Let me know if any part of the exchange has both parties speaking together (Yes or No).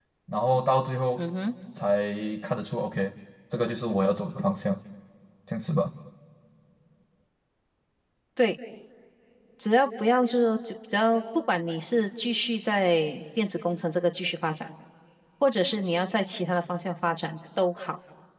No